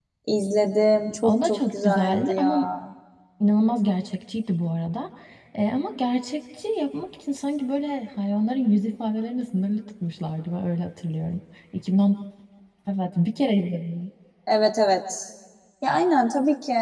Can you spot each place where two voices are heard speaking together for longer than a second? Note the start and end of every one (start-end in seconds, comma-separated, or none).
1.2-2.6